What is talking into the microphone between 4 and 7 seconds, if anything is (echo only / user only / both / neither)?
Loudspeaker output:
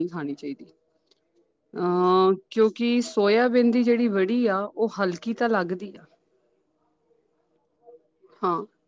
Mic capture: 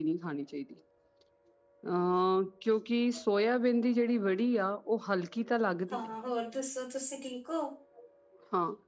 both